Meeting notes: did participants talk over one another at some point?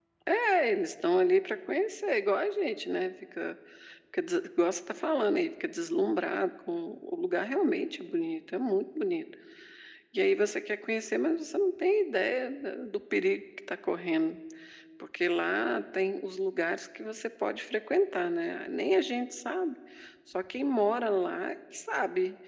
No

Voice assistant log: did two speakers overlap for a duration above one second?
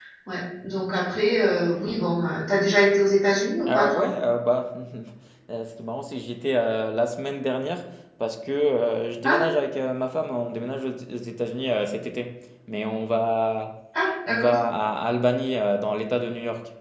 No

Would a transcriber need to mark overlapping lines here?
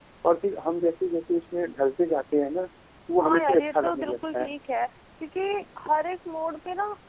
Yes, from 3.2 s

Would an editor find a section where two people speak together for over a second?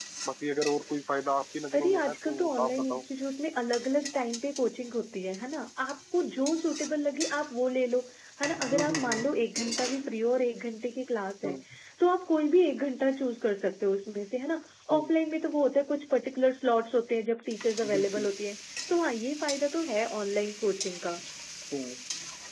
Yes, from 1.7 s

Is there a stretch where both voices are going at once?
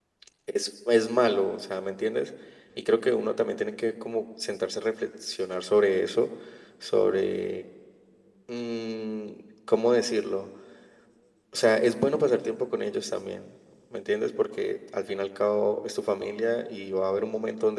No

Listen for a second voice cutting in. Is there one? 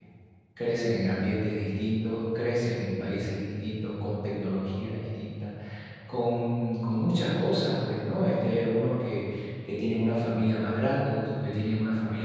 No

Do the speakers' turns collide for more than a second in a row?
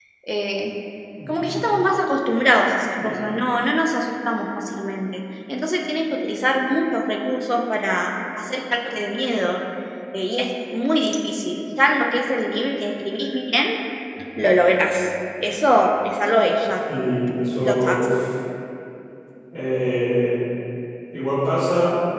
No

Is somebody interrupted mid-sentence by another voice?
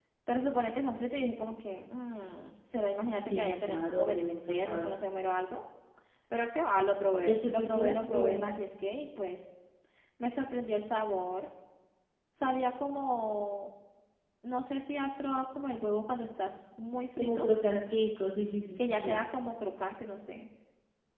Yes, from 3.3 s

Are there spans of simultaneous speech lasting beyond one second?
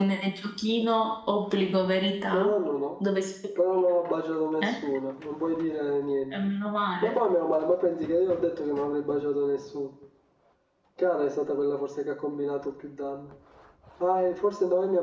No

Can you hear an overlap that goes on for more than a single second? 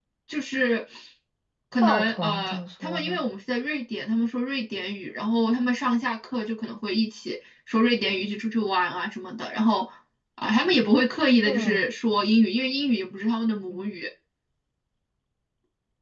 Yes, from 1.8 s

